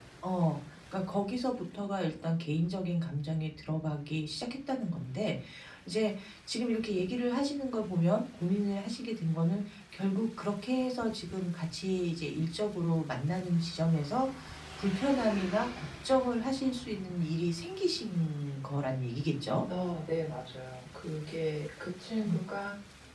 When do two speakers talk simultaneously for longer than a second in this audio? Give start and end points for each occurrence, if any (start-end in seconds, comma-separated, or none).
none